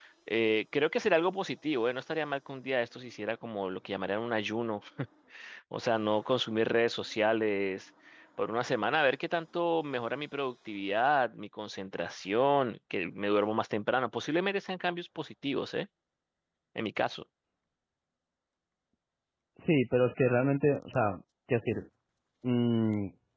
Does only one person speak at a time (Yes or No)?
Yes